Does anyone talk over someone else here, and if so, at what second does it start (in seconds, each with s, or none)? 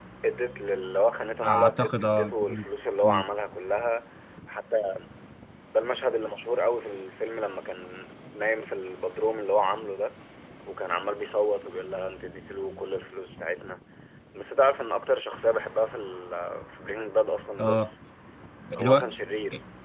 1.4 s